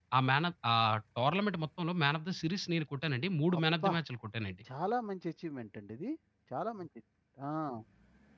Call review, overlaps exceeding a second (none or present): none